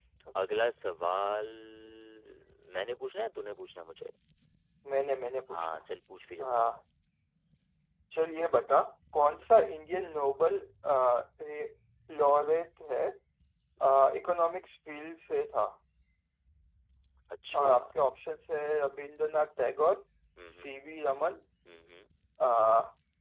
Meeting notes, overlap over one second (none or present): none